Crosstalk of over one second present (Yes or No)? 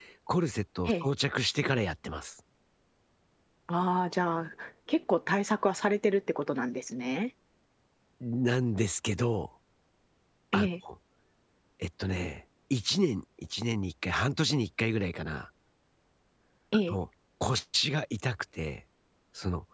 No